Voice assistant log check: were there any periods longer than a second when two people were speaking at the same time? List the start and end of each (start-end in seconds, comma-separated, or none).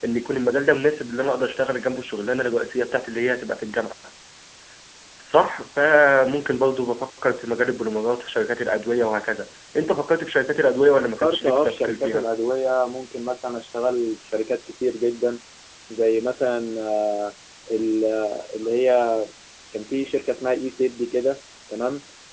11.0-12.3